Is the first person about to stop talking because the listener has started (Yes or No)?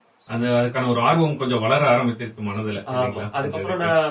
Yes